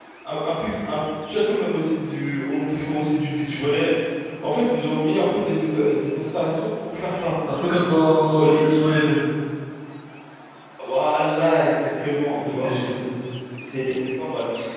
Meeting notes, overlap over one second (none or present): none